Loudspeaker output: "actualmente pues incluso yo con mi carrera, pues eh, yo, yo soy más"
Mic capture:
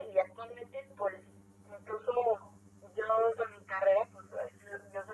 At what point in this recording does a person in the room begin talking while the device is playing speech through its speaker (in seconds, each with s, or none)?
none